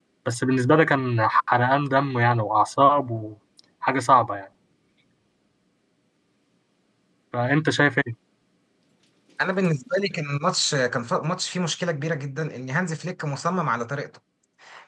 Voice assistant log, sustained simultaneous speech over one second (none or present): none